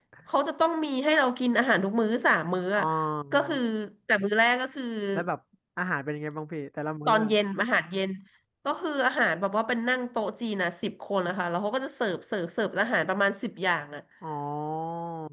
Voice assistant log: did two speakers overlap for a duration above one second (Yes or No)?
No